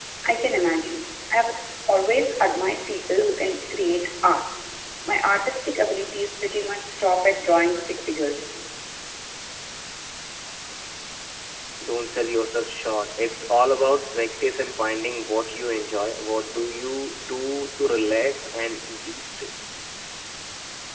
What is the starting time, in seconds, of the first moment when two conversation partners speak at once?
none

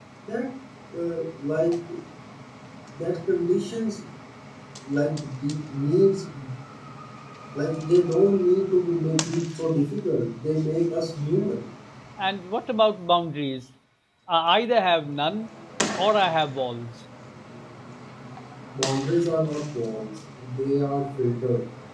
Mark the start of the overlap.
none

